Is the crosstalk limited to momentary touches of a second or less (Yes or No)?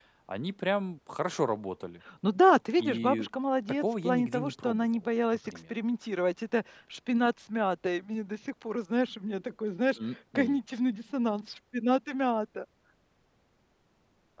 No